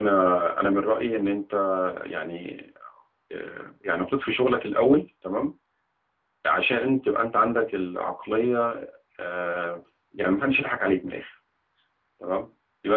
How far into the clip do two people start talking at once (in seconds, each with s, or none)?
none